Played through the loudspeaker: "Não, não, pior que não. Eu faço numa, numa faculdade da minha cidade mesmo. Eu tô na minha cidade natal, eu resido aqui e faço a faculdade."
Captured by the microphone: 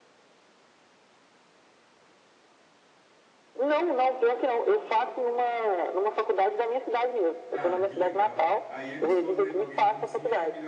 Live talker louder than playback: No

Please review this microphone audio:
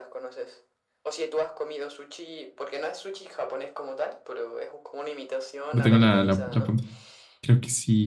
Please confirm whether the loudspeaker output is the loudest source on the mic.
No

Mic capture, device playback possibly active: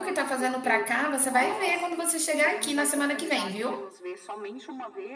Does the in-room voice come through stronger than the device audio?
Yes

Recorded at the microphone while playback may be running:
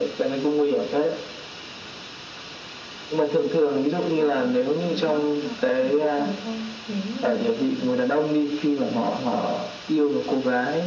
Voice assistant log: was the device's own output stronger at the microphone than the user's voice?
Yes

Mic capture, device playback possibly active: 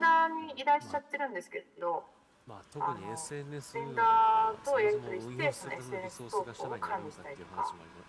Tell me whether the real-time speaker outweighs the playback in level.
No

